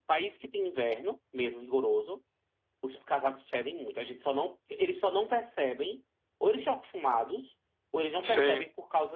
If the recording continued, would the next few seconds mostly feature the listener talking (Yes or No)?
No